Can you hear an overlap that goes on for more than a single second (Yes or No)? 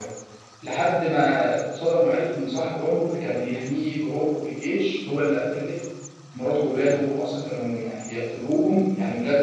No